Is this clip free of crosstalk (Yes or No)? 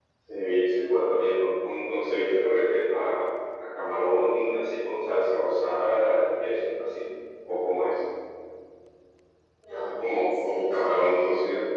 No